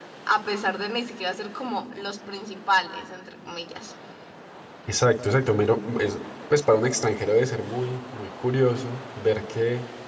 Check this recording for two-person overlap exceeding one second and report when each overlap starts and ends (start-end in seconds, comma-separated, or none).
none